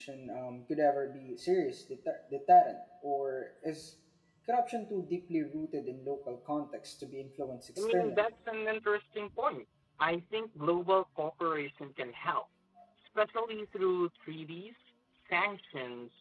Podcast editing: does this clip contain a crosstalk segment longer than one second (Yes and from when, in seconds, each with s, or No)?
No